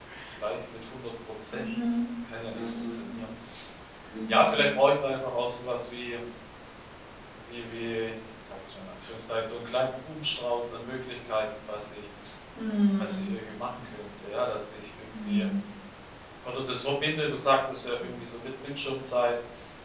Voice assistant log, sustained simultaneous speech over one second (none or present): none